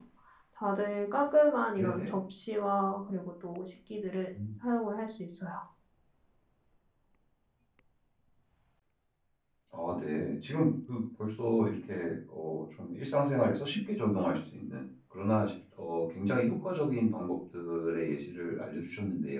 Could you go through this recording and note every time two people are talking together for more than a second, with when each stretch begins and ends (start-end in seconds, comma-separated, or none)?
none